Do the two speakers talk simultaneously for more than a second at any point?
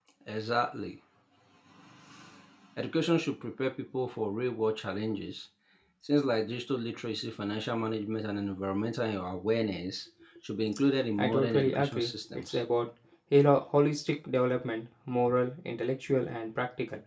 Yes, from 11.2 s

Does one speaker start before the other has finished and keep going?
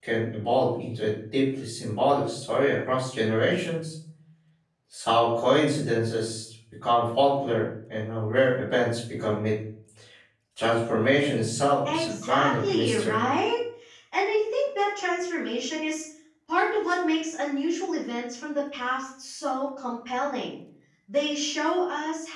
Yes, from 11.8 s

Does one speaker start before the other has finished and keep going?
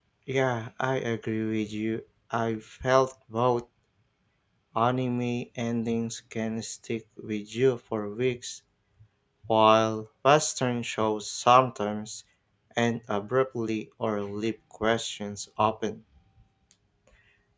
No

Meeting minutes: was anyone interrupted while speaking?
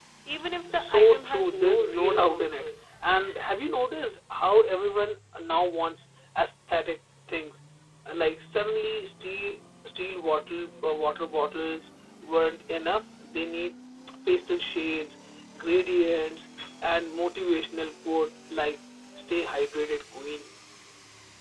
Yes, from 0.7 s

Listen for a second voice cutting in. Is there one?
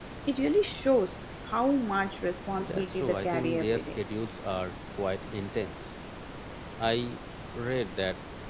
Yes, from 2.6 s

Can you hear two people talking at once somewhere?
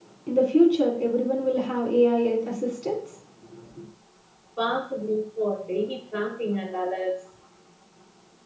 No

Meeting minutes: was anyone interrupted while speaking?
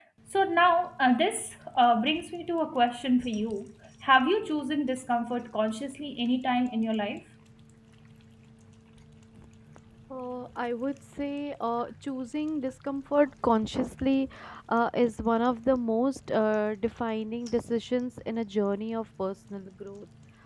No

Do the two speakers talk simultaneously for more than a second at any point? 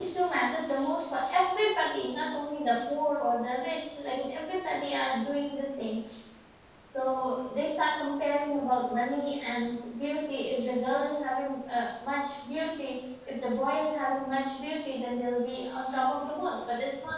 No

